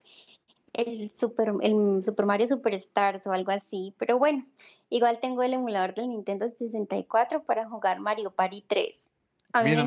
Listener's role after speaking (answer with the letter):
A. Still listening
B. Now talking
B